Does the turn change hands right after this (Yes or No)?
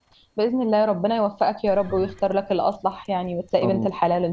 Yes